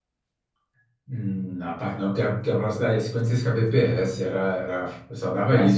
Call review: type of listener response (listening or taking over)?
taking over